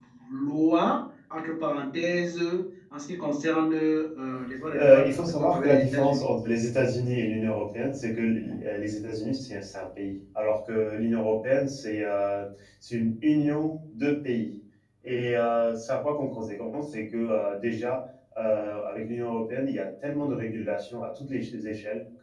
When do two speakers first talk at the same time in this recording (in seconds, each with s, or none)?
4.7 s